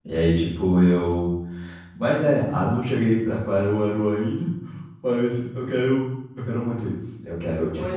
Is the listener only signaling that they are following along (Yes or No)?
No